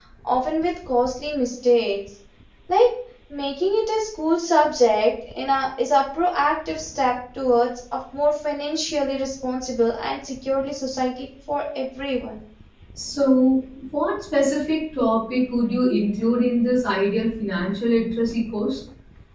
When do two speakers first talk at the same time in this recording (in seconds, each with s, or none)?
none